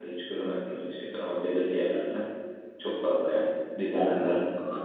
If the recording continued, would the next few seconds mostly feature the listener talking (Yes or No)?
No